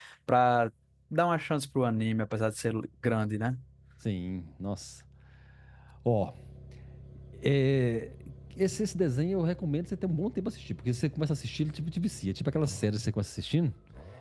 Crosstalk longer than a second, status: none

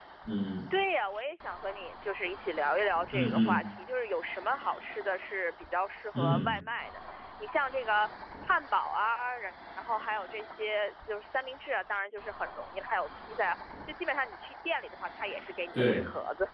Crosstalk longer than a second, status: none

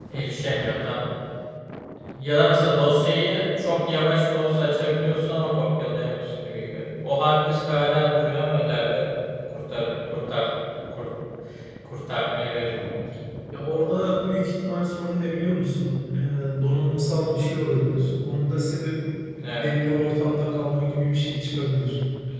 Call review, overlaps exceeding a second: none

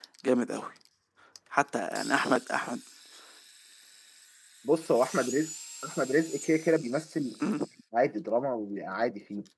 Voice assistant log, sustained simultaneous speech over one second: none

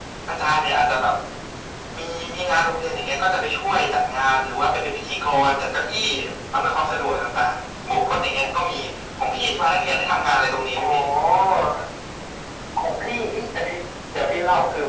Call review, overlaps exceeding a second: none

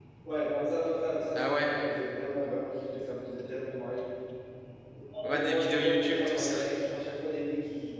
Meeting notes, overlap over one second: present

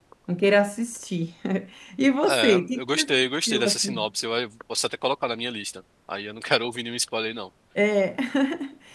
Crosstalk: present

